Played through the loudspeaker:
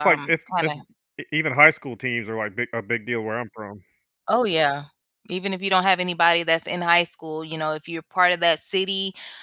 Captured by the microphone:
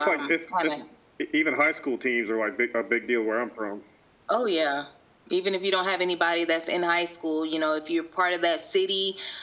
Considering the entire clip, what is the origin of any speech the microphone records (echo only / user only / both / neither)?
echo only